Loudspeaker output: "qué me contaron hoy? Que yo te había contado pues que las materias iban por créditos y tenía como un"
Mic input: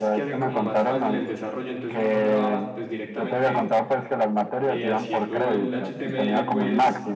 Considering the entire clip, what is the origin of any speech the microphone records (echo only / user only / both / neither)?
both